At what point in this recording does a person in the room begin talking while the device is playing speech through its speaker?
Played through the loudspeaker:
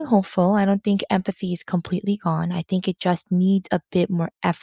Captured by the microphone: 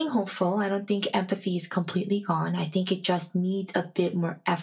none

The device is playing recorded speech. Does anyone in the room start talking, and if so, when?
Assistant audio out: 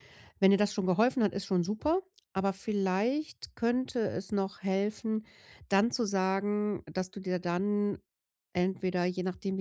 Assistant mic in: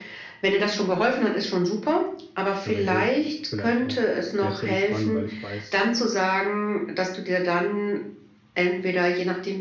2.6 s

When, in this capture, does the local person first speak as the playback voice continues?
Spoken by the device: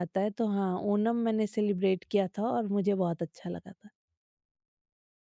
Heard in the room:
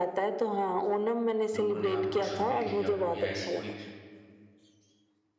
1.5 s

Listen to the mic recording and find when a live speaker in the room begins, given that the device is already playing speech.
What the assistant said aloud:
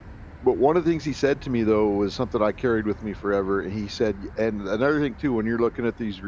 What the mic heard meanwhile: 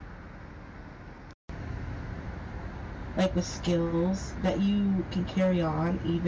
3.2 s

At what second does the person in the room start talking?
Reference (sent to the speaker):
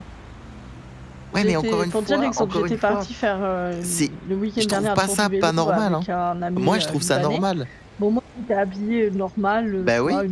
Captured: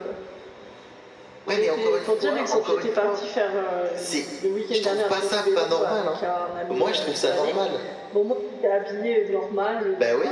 none

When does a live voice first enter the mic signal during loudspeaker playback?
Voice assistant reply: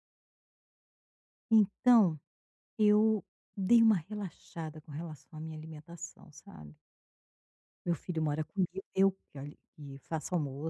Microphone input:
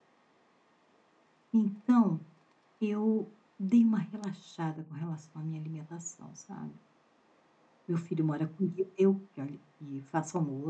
none

